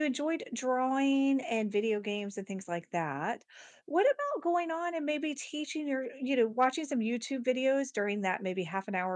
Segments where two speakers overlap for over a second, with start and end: none

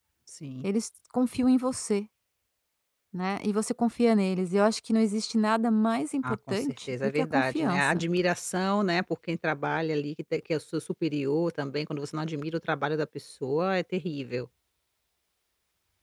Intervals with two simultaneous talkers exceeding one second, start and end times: 6.2-8.0

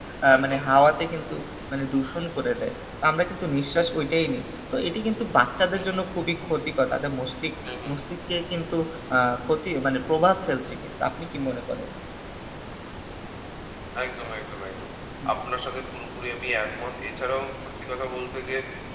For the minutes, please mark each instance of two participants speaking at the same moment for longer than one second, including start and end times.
none

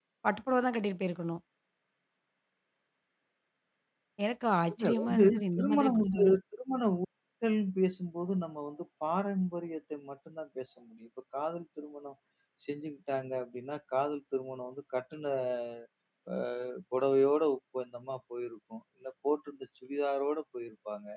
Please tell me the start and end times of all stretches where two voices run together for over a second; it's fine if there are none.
4.8-6.1

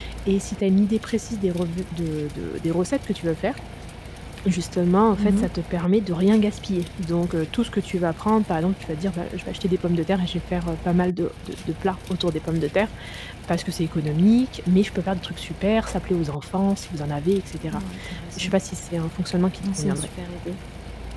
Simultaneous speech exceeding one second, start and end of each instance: none

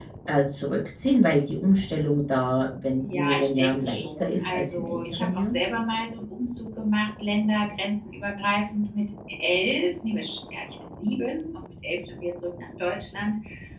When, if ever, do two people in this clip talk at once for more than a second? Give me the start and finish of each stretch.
3.0-5.5

